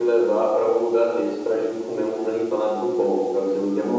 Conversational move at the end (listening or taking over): taking over